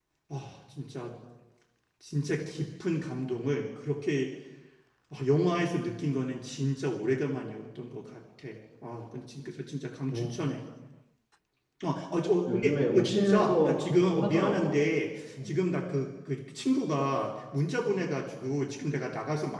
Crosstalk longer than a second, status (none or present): present